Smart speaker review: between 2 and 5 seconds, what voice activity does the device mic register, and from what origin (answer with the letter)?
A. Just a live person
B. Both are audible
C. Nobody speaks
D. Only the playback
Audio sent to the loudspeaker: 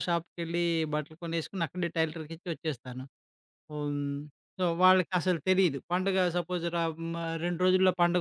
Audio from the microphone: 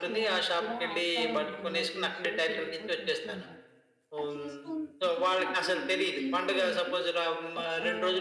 B